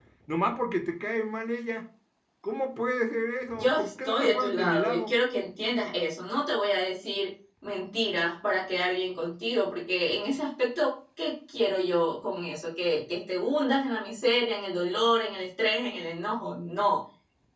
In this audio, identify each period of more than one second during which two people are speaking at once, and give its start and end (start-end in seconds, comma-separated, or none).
3.5-5.2